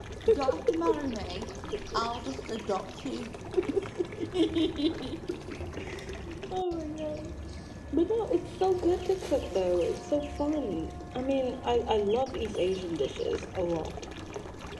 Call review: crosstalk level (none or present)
none